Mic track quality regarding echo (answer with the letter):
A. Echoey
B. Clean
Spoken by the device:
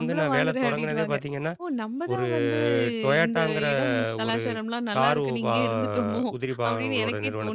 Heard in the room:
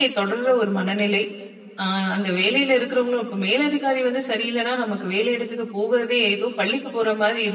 B